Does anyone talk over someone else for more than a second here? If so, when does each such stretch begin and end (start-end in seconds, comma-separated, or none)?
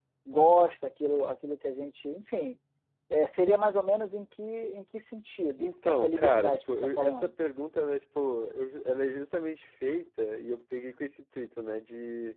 5.6-7.3